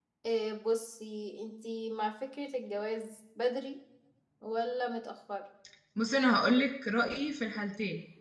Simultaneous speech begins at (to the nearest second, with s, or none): none